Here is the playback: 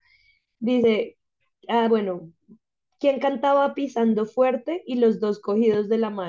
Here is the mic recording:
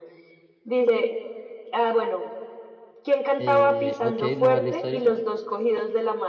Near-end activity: present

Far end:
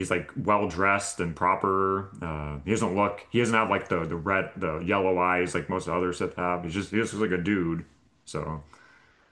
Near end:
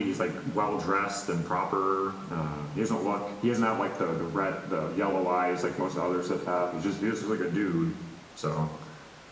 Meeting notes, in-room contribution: none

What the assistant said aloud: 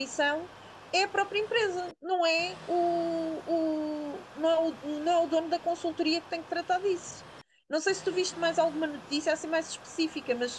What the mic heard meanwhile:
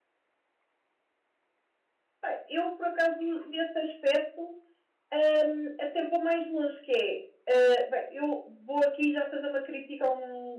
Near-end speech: present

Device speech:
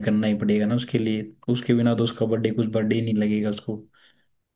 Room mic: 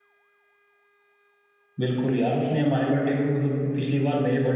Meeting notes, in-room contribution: present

